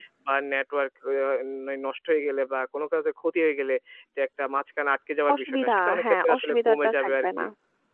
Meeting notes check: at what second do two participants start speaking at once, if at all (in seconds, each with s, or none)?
5.3 s